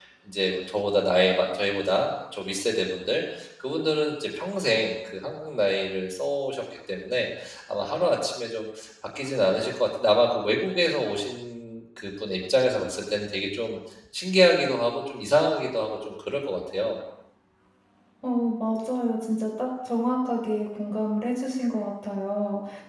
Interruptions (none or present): none